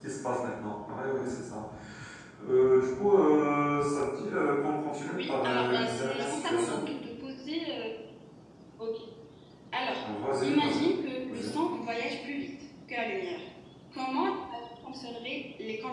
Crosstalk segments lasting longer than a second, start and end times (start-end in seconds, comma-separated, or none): 5.1-6.9